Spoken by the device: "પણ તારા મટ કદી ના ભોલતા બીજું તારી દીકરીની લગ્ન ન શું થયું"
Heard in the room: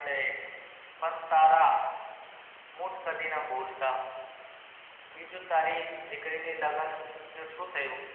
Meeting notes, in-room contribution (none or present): none